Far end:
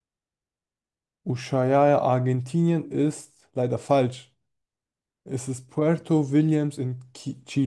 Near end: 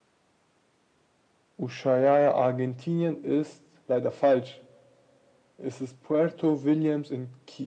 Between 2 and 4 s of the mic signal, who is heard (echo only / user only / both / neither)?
echo only